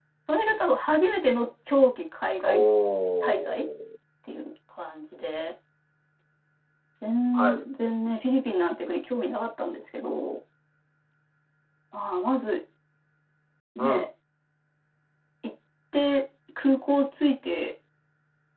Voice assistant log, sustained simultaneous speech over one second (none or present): none